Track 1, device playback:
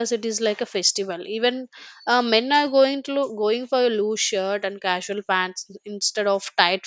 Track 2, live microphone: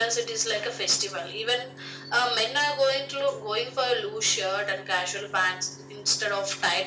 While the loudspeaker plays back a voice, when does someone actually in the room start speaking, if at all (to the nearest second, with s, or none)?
none